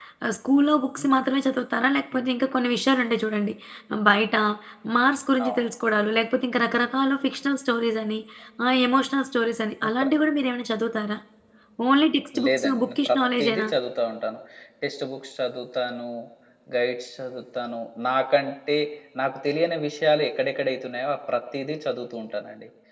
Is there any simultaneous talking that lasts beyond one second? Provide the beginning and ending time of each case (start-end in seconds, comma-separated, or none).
12.4-13.7